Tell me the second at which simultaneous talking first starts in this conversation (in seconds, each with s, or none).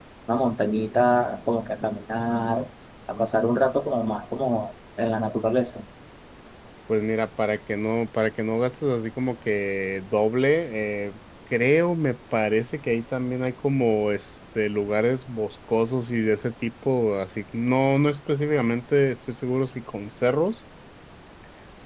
none